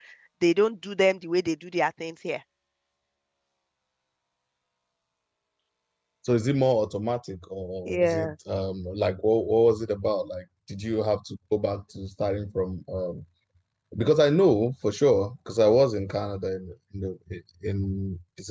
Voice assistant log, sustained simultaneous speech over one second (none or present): none